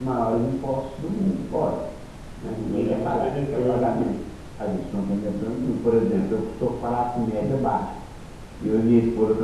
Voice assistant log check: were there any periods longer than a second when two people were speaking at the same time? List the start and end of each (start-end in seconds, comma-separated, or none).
2.5-4.1